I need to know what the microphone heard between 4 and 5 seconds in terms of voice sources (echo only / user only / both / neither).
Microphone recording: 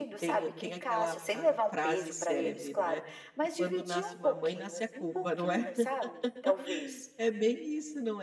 both